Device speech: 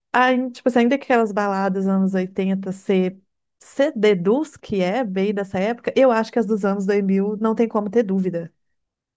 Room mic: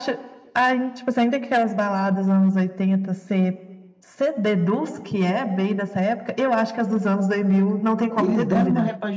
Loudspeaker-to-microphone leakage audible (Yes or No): Yes